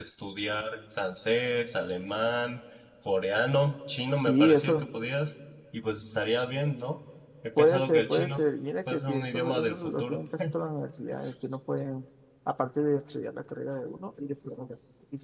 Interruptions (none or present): present